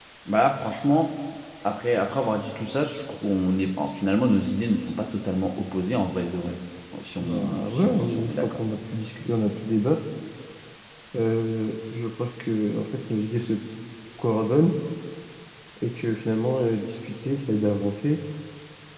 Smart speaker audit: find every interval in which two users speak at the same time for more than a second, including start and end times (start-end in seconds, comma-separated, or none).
7.2-8.6